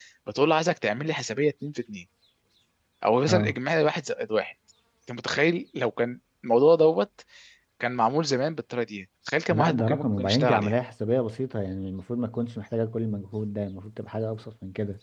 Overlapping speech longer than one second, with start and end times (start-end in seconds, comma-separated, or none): 9.5-10.7